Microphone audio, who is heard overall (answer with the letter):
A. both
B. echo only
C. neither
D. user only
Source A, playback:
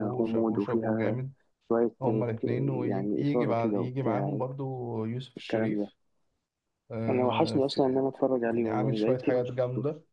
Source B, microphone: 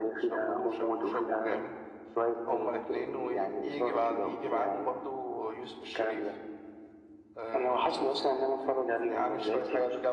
B